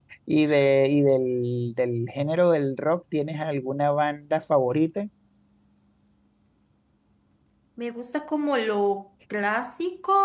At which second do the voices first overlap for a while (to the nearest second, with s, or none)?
none